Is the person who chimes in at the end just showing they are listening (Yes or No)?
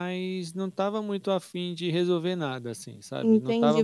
No